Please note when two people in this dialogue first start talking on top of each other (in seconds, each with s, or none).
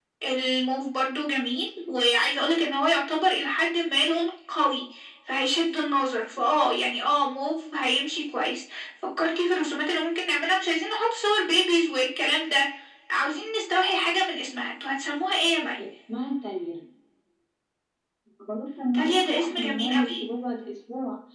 18.9 s